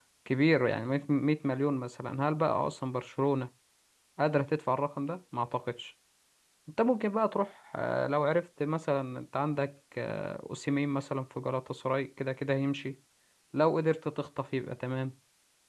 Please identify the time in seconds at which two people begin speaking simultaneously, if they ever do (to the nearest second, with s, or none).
none